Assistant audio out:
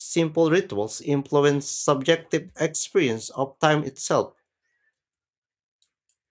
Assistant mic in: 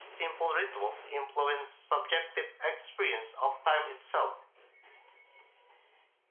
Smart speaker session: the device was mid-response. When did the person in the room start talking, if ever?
none

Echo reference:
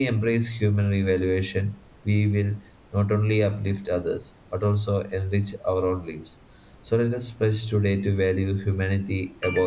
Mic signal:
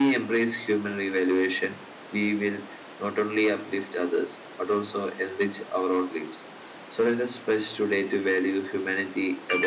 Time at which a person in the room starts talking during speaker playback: none

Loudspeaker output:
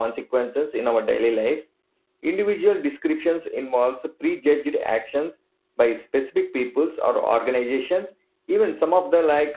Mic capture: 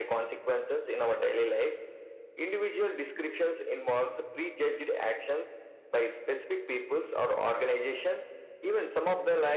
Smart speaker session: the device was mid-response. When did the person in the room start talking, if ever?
none

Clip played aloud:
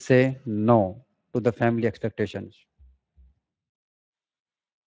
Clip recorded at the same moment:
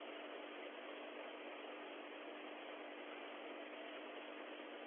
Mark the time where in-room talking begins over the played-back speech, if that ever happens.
none

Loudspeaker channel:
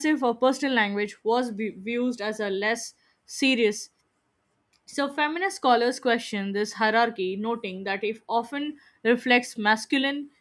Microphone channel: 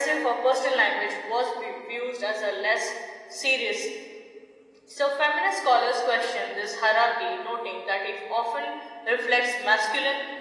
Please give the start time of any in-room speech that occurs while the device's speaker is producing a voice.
none

